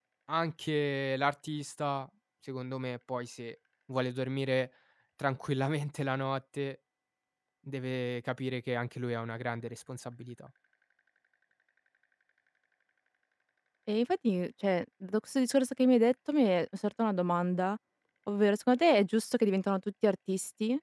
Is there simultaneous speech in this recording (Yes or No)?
No